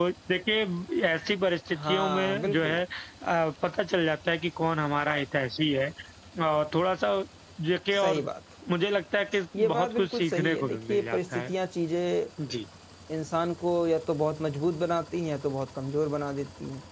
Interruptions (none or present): present